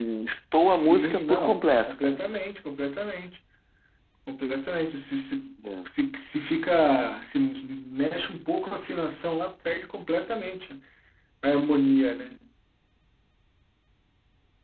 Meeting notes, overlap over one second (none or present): present